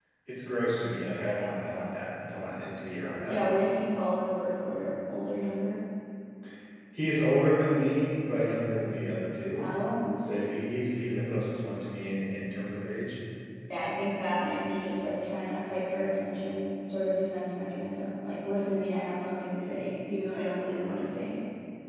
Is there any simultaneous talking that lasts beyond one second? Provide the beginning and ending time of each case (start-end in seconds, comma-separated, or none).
none